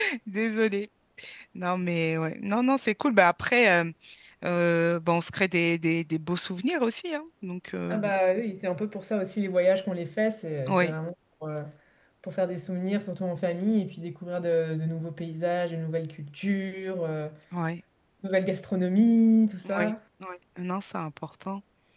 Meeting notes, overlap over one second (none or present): none